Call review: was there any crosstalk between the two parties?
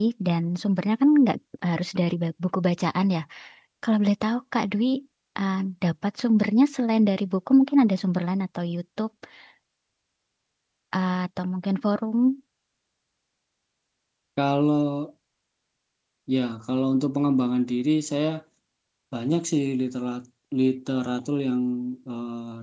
No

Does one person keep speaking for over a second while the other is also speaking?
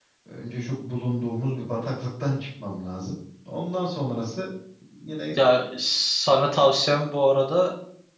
No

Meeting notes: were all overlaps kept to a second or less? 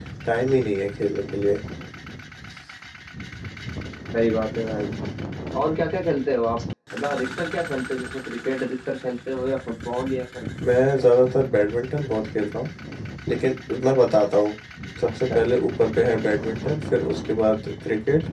Yes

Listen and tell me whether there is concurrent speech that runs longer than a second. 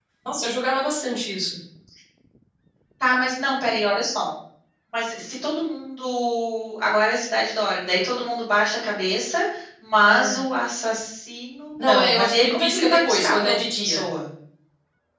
Yes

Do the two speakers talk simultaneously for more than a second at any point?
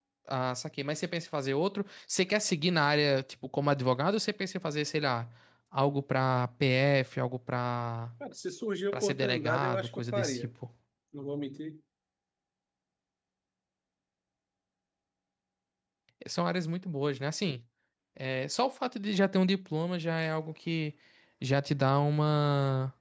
Yes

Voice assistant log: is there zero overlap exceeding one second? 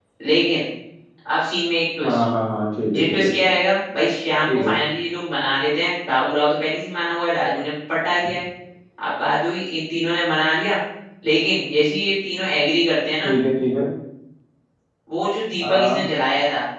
Yes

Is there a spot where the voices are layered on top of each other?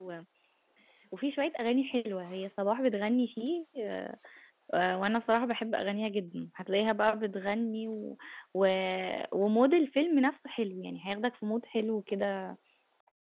No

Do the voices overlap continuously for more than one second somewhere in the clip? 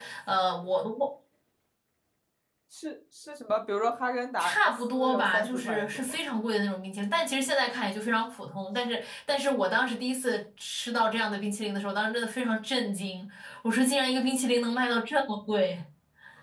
Yes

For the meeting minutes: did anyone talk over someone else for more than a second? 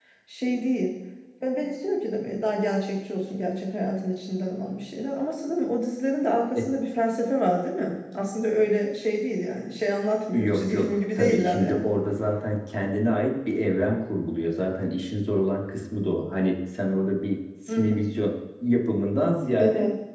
Yes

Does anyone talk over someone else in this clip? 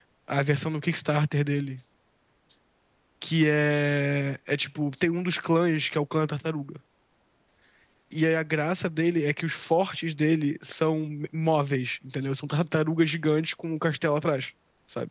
No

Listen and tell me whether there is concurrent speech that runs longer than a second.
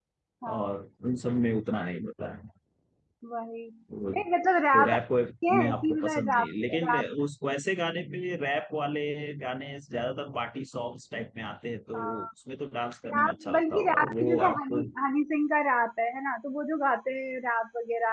Yes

